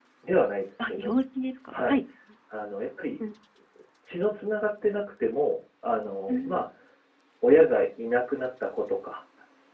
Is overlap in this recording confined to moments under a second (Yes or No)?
Yes